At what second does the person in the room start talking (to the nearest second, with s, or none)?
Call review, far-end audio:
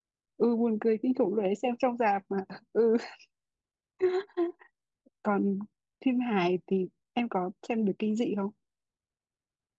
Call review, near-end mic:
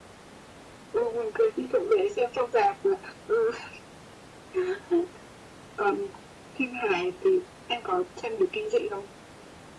none